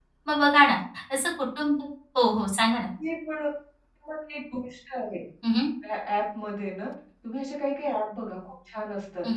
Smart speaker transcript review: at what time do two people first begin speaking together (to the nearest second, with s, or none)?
none